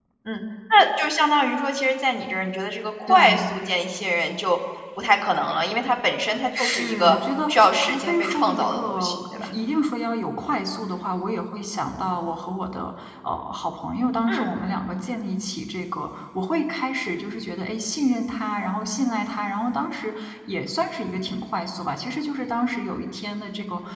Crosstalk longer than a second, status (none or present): present